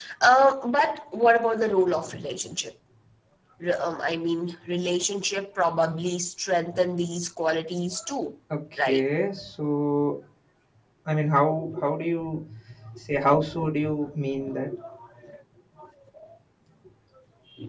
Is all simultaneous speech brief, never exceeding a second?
Yes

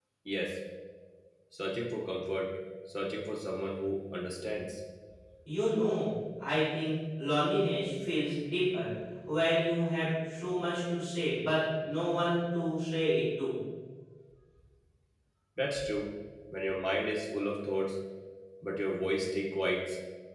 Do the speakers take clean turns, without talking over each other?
Yes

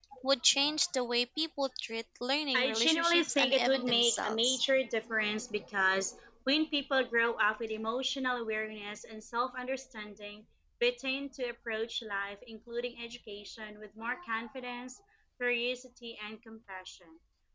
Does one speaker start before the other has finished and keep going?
Yes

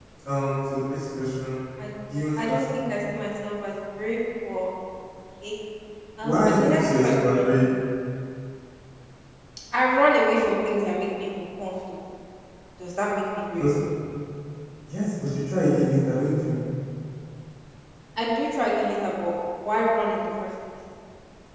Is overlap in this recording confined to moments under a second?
No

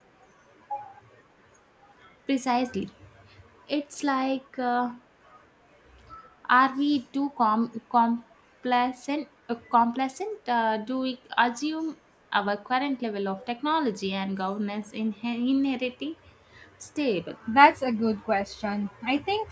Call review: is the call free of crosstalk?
Yes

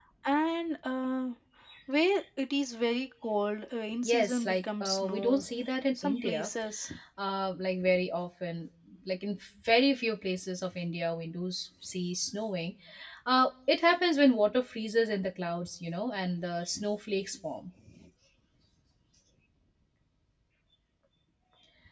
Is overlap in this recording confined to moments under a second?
No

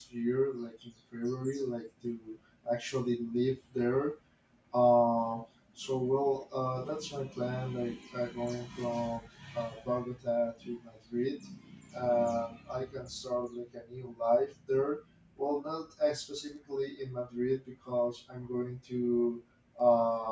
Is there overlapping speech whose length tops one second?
No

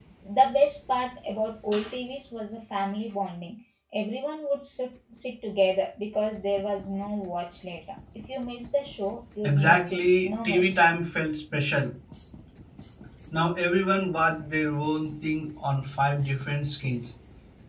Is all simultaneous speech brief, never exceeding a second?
No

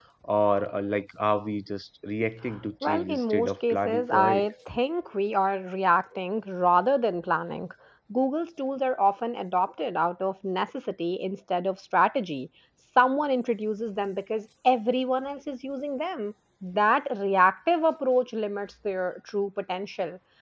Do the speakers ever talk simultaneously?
Yes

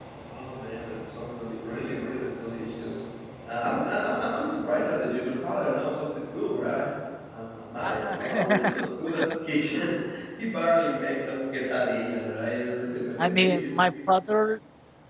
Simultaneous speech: Yes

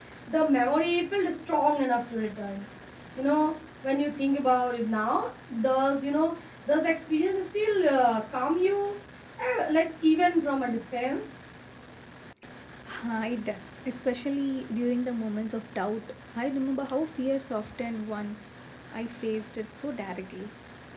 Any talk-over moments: No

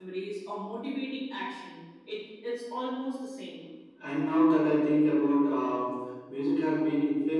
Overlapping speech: No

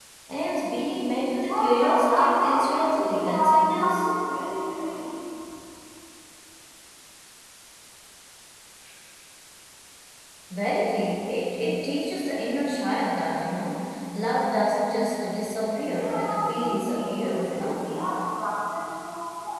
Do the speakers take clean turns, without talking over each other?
No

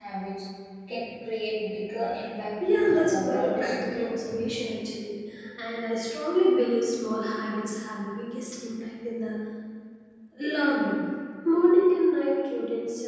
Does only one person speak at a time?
No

